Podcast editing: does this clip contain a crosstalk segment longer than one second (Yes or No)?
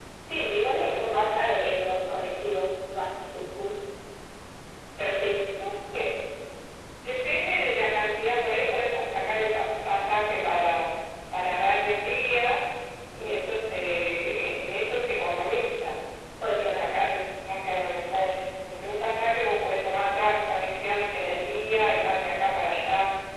Yes